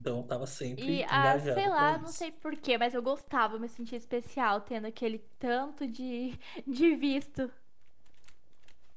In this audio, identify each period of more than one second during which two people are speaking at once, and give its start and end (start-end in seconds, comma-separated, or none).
0.8-2.2